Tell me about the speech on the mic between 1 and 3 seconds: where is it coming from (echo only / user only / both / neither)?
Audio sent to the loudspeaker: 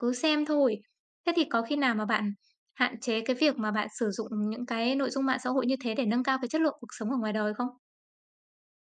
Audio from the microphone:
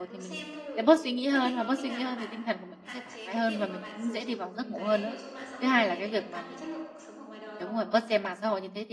both